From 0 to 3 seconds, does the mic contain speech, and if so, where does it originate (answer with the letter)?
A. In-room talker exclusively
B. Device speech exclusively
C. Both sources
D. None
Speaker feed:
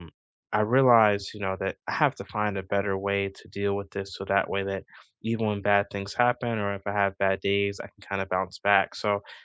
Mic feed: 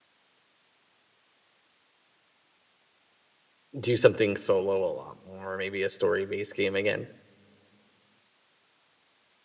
D